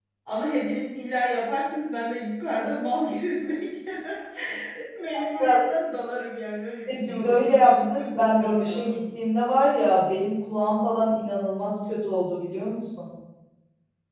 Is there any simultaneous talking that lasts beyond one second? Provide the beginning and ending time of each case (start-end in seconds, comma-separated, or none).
6.9-9.0